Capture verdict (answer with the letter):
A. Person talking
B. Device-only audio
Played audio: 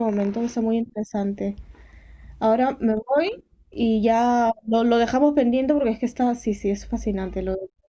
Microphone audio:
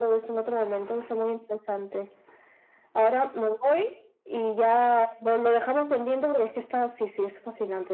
B